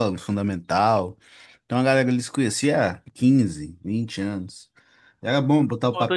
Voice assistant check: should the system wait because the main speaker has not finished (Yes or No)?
No